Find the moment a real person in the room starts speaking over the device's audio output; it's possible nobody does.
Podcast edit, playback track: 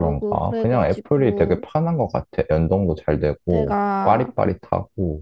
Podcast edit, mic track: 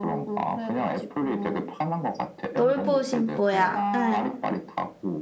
2.5 s

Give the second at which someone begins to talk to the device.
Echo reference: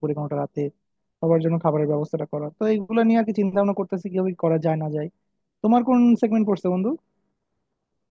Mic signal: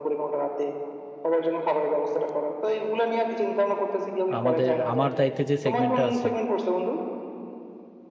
4.4 s

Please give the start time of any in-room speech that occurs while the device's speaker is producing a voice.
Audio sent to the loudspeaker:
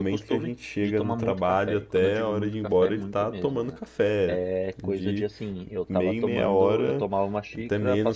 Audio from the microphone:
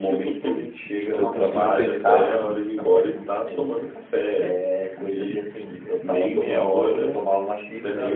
1.1 s

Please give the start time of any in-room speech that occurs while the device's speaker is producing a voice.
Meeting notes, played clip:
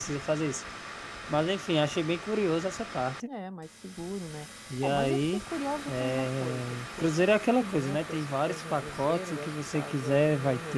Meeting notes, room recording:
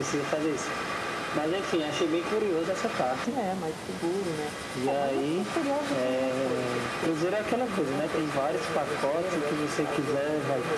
none

